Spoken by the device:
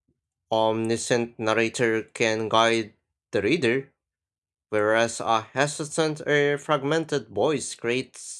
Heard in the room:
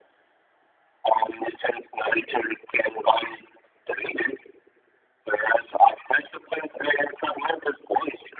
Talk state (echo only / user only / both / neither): echo only